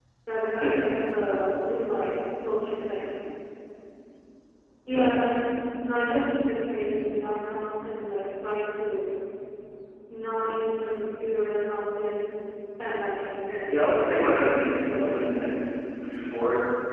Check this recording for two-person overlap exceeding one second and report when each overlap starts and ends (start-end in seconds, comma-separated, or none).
13.7-15.2